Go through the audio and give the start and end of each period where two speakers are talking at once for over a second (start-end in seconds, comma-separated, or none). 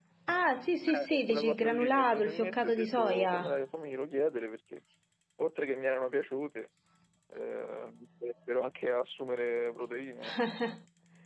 0.9-3.6